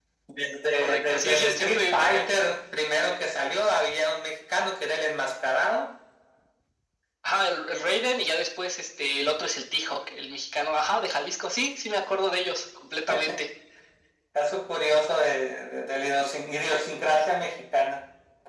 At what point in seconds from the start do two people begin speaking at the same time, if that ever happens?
1 s

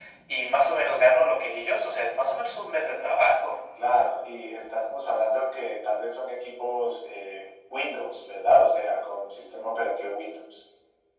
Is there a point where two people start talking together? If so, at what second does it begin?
none

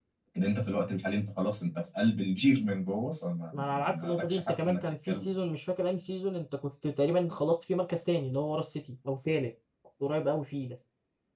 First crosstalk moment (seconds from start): 4 s

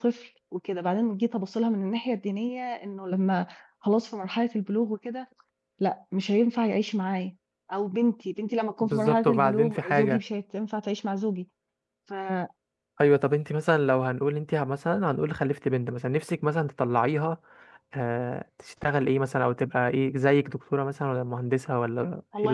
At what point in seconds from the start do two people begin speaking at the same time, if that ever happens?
9 s

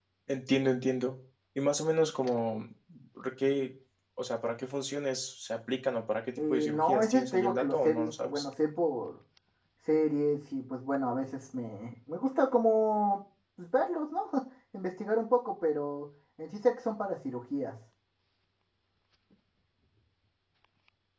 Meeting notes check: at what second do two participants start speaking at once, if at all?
6 s

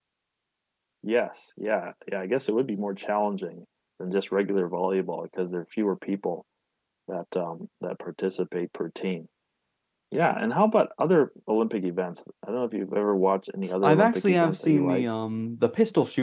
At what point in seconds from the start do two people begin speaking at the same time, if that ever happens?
14 s

